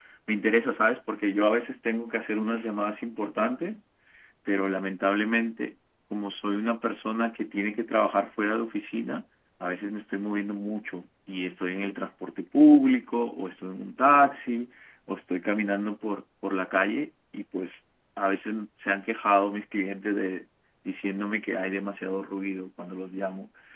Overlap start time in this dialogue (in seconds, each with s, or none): none